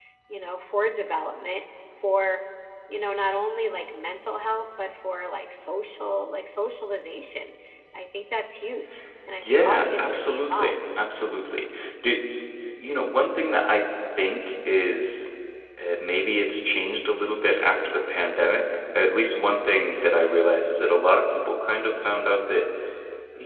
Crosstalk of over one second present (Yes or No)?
Yes